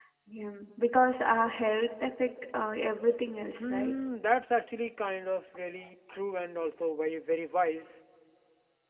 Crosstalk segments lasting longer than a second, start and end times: none

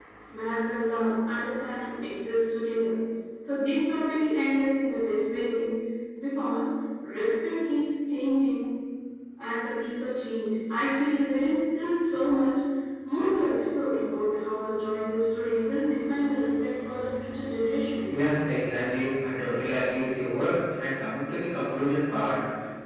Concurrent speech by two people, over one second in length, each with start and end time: none

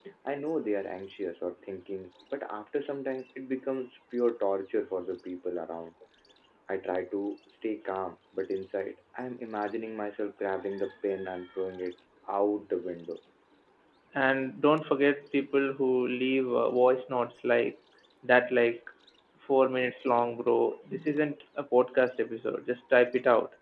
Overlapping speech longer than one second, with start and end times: none

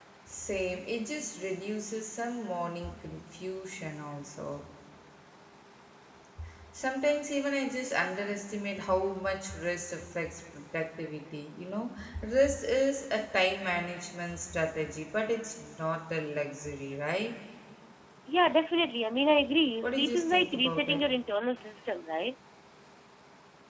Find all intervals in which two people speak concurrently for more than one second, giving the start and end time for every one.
19.8-21.0

